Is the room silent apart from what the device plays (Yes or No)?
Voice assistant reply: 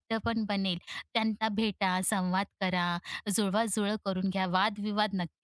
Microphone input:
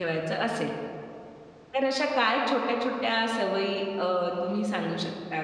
No